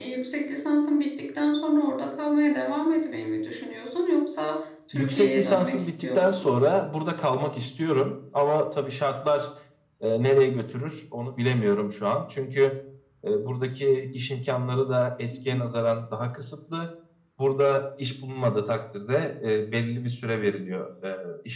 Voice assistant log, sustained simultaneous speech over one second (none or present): present